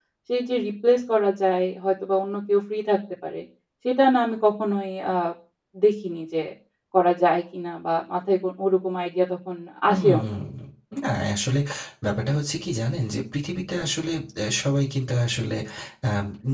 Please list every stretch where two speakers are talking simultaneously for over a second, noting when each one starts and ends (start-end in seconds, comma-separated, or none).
none